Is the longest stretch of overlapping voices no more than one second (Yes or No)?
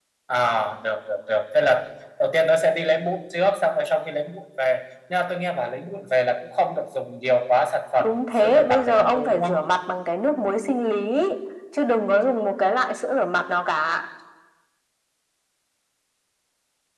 No